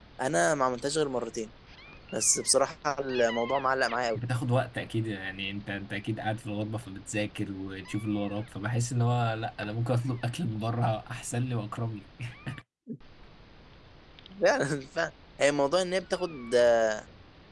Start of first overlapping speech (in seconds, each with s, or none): none